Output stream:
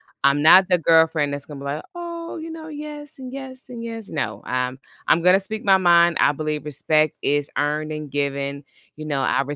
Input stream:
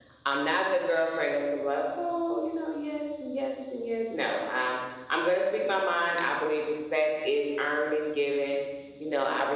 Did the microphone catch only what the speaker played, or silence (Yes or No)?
Yes